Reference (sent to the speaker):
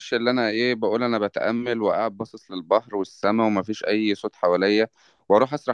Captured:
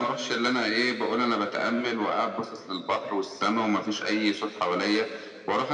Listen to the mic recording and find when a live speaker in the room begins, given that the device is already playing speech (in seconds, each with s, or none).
none